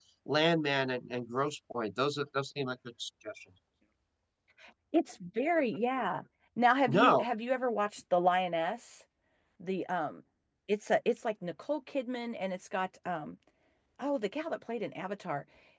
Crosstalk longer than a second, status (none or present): none